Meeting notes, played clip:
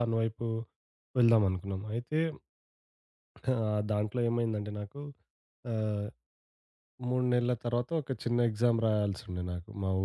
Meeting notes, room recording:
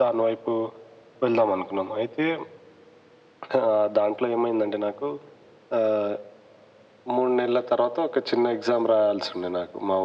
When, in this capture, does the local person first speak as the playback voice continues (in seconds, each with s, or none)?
none